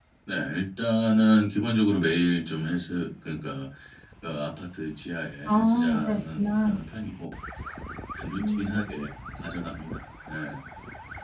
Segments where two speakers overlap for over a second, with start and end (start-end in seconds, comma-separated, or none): 5.5-6.8